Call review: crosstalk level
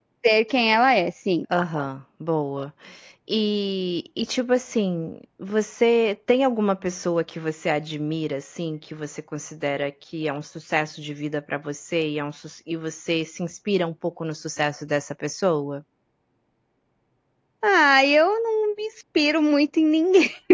none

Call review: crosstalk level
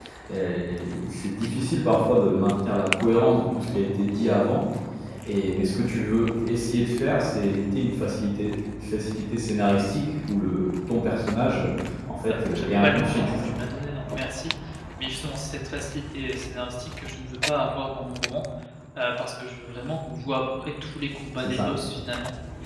present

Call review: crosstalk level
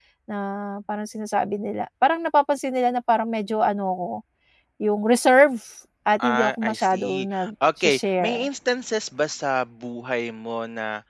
present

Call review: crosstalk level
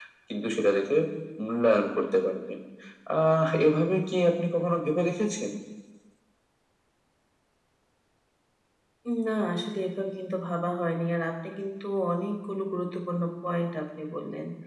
none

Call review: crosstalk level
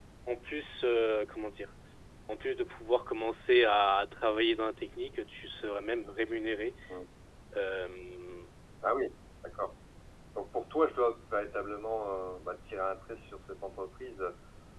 none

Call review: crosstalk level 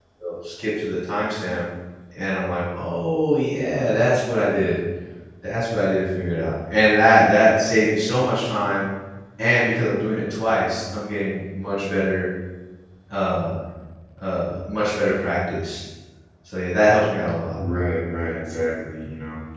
none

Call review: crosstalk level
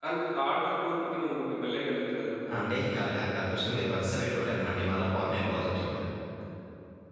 none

